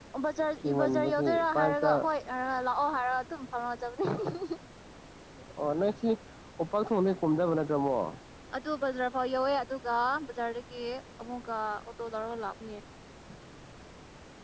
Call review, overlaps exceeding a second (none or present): present